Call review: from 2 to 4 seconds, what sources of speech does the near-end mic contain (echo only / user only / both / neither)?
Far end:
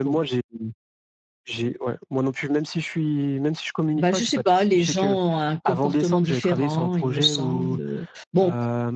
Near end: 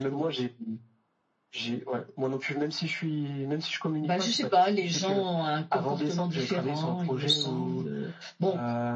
echo only